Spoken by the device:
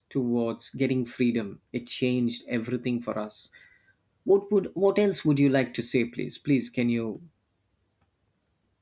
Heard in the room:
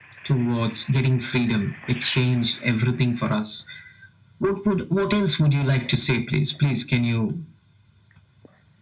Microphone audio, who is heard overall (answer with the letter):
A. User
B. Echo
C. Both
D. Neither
B